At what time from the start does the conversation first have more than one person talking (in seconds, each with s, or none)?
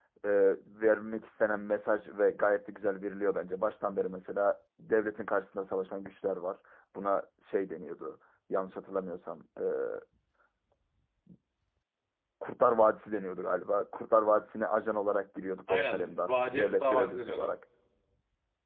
15.7 s